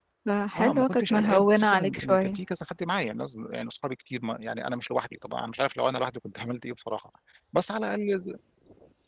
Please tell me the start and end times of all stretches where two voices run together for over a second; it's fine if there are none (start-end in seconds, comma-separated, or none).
0.6-2.4